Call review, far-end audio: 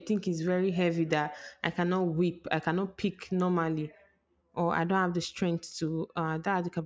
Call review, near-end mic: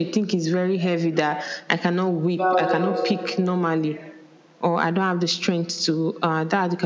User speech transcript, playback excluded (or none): violent too.